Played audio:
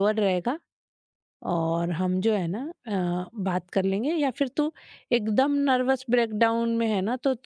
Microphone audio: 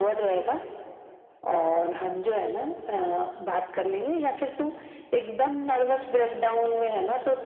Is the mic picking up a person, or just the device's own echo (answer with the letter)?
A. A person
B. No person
B